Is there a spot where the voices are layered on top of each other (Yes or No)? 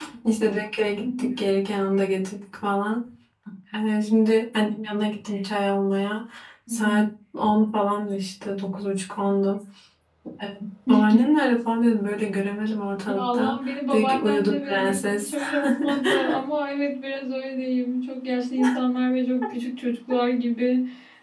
Yes